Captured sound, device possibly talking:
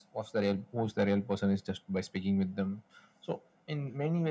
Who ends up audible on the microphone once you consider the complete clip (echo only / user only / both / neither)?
echo only